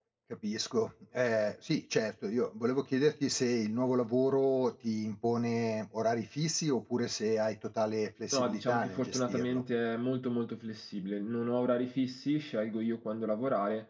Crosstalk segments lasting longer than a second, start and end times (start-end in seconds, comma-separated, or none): 8.3-9.6